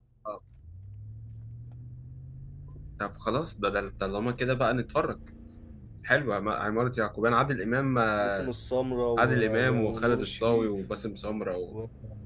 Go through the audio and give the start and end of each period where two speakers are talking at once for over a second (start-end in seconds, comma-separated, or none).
9.2-10.7